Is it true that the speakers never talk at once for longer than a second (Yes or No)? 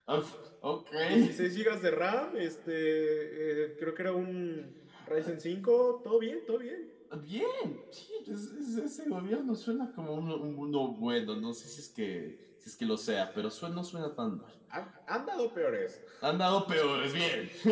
Yes